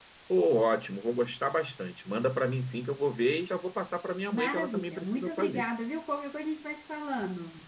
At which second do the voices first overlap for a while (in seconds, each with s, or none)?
4.3 s